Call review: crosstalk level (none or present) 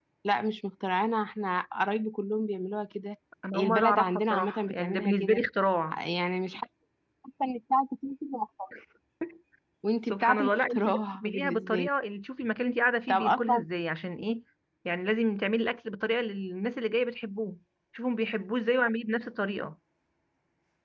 present